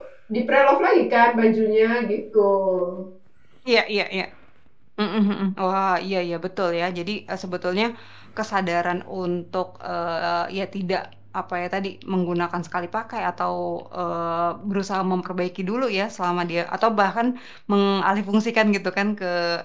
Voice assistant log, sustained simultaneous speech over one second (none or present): none